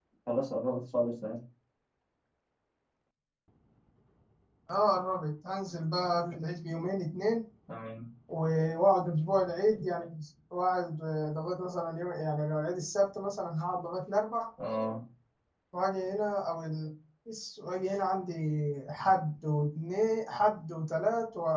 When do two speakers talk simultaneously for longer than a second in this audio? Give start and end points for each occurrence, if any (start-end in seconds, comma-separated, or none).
none